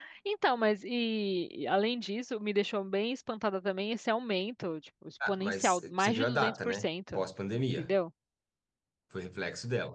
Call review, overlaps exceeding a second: present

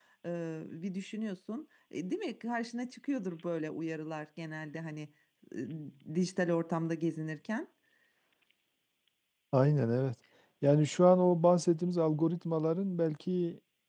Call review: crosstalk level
none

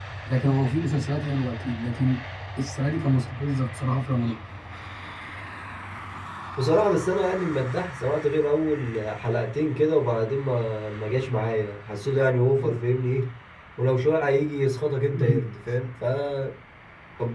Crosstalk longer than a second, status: none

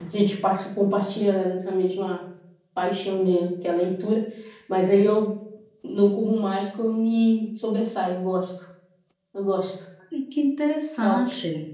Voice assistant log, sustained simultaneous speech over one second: none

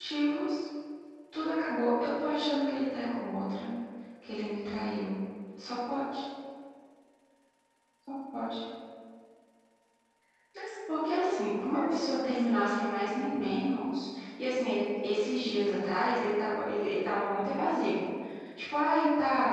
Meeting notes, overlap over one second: present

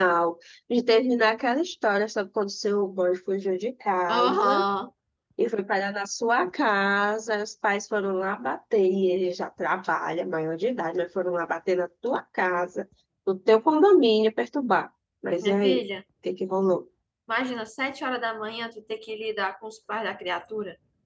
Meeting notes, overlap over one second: none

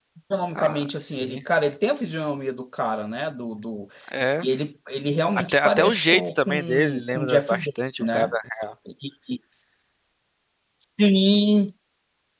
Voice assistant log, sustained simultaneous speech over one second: present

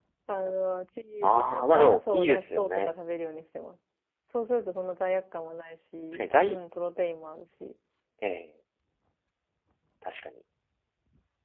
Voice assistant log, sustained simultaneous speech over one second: present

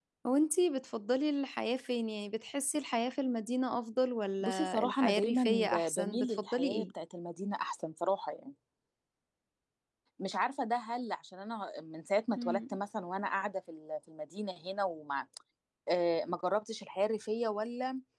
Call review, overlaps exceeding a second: present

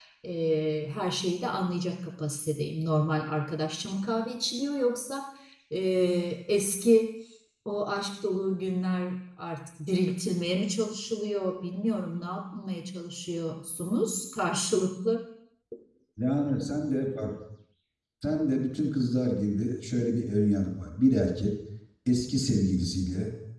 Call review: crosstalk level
none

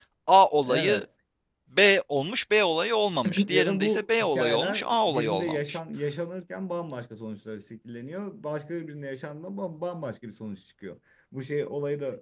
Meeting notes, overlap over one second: present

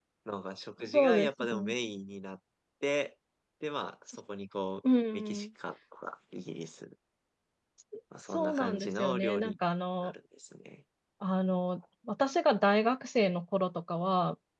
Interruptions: present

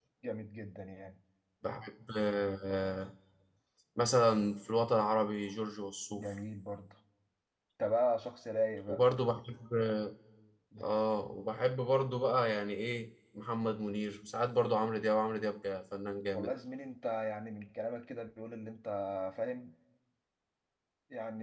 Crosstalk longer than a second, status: none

